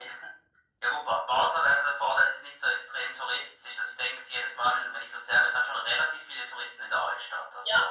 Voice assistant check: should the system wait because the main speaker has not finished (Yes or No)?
No